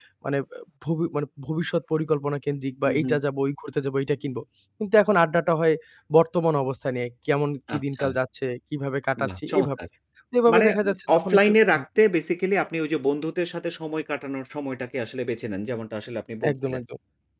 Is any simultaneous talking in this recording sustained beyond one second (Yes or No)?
Yes